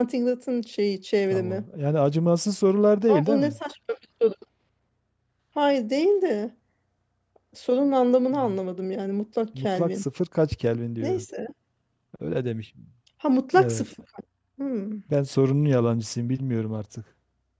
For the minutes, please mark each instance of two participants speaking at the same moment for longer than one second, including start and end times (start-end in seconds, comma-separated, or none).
none